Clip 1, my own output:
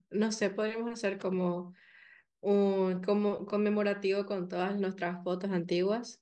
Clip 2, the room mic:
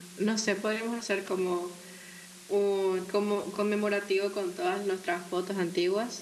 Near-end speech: none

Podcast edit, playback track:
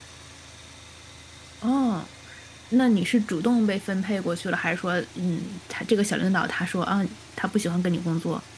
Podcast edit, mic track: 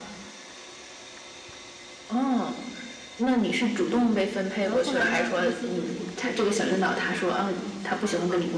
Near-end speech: present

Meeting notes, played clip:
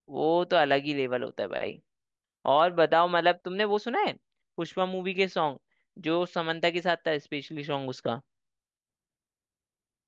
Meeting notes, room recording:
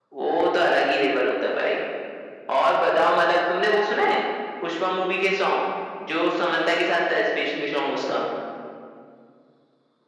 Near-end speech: none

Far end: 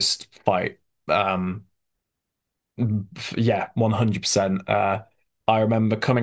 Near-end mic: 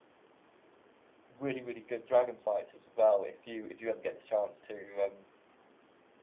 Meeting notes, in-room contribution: present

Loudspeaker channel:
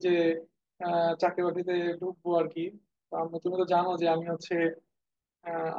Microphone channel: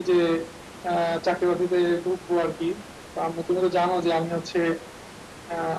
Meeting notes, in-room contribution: none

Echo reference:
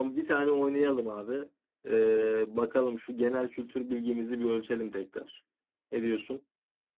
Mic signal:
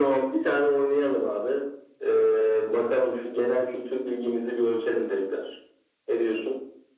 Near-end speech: none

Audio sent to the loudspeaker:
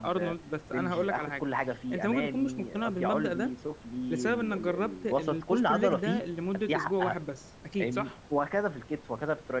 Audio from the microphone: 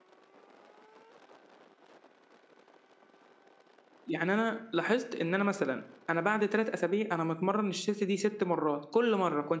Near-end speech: present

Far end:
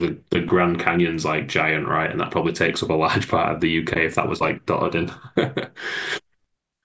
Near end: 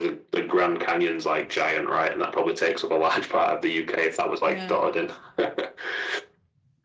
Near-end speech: present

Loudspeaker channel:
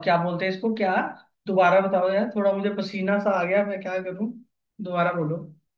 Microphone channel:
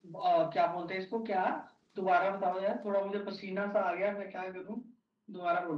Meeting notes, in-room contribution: none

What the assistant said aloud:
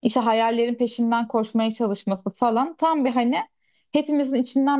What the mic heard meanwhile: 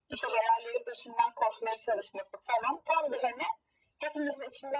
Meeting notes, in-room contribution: none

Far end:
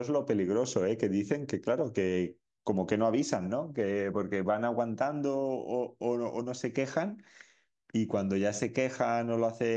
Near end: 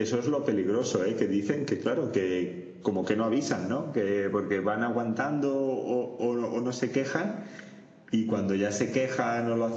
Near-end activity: none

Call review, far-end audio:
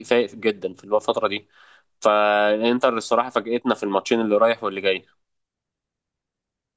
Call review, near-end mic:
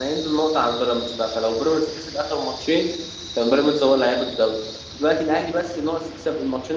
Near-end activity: present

